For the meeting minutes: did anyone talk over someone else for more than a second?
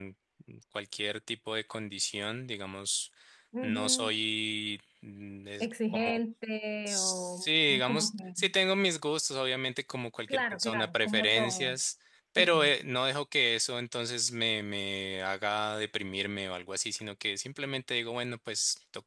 Yes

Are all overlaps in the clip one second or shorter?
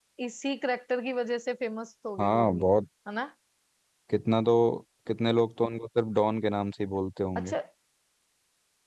Yes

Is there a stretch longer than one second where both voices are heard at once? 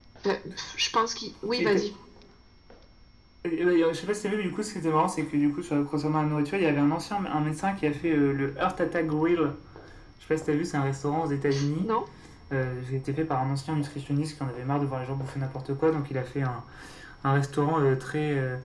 No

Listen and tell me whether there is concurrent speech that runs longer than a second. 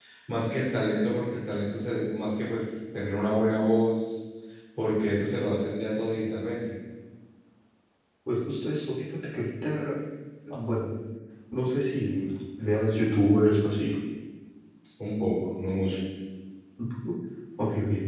No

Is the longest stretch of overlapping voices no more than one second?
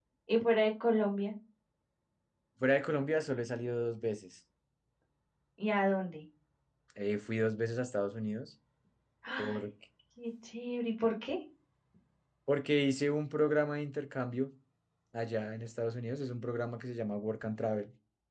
Yes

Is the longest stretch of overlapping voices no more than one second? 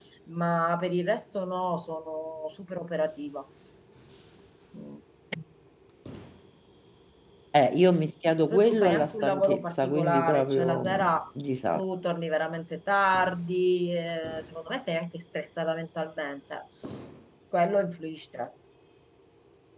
No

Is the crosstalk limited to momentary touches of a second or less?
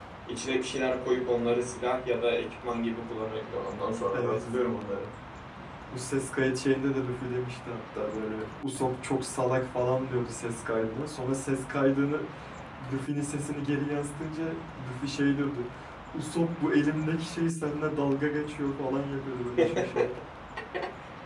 Yes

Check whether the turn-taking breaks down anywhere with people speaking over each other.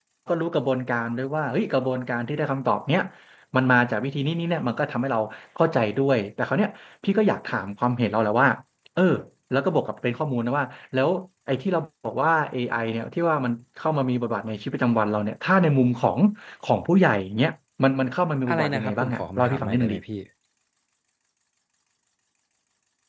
Yes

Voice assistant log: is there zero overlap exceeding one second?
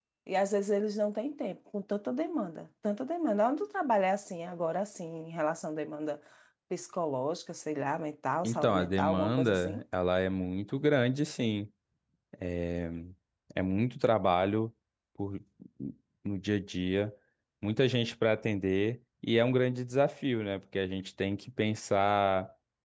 No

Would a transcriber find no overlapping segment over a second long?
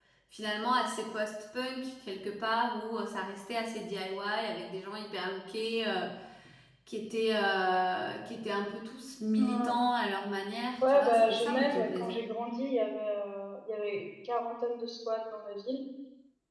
No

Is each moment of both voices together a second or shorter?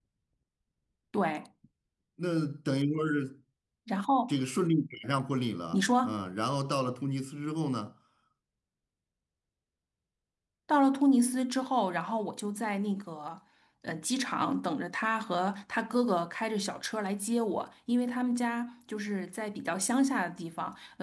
Yes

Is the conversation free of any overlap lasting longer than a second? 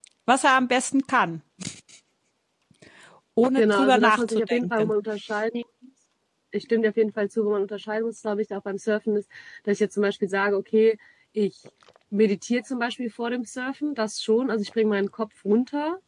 No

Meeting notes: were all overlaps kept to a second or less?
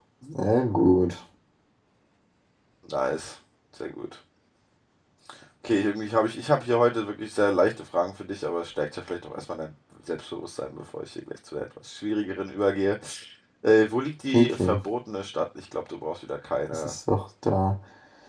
Yes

